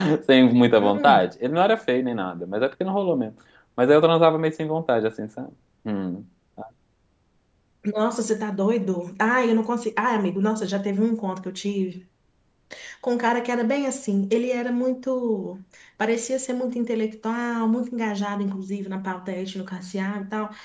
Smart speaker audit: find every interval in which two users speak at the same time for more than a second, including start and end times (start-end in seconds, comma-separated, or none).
none